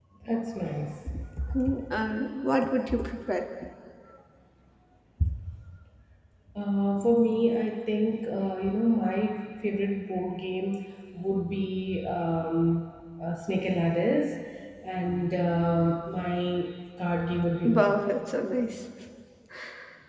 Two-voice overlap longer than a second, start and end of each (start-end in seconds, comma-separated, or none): none